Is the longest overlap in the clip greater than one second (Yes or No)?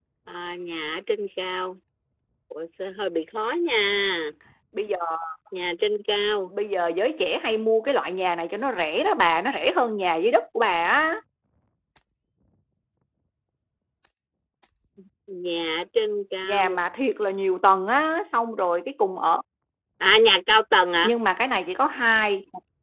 No